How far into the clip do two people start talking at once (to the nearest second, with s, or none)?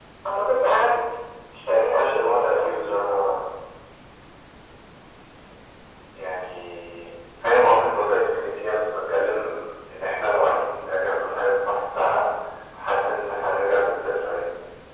2 s